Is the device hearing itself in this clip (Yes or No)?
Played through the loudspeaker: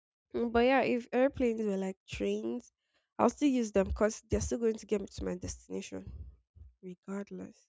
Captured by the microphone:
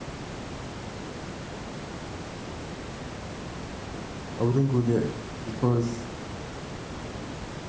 No